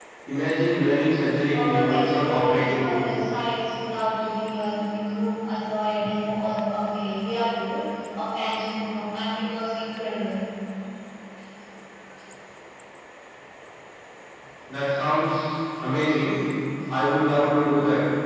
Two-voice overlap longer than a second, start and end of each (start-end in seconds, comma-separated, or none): 1.5-3.1